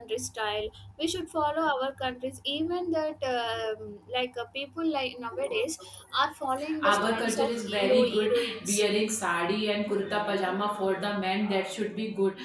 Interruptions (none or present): present